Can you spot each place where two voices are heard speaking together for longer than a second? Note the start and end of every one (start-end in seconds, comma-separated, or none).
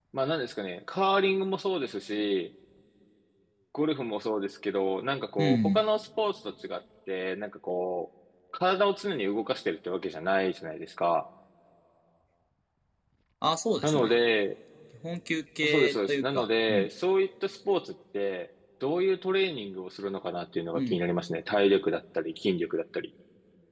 15.6-16.9